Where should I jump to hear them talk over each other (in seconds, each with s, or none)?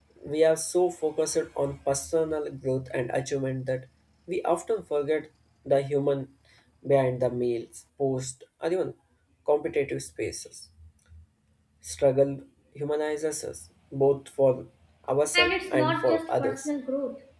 15.3 s